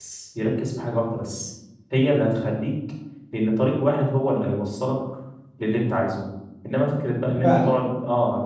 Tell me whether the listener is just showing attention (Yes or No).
Yes